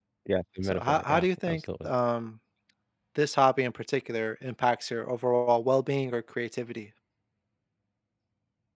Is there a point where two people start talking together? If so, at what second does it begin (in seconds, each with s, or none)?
0.6 s